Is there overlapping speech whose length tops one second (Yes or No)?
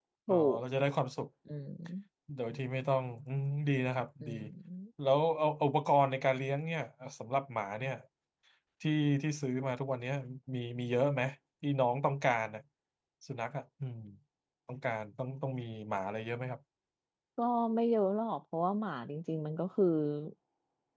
No